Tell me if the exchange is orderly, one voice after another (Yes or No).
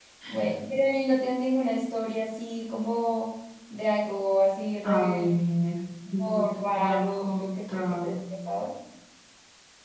No